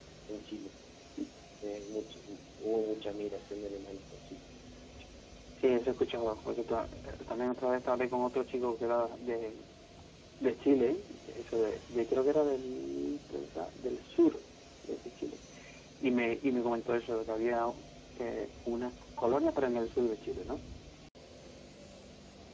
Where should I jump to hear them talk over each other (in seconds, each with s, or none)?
none